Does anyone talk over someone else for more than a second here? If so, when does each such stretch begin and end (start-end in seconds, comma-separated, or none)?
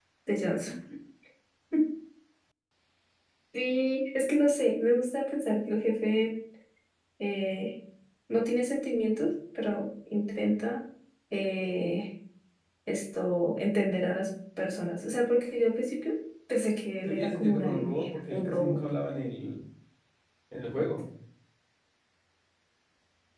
17.0-18.8